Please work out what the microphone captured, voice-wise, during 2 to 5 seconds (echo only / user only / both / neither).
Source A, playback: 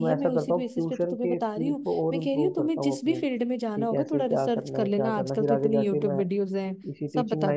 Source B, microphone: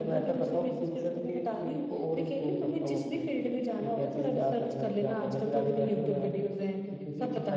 echo only